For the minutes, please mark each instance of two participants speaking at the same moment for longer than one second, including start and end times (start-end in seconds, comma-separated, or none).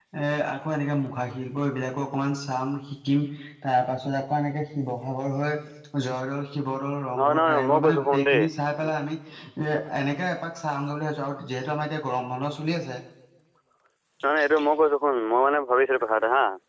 7.2-8.4